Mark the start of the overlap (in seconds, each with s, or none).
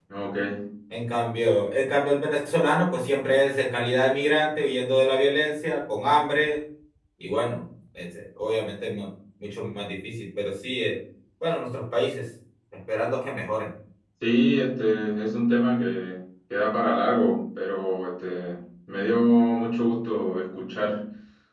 none